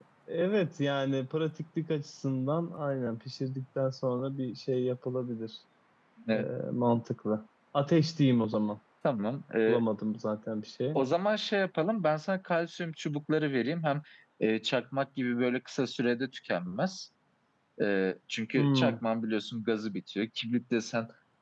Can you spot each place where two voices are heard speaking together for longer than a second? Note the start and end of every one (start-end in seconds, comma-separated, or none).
none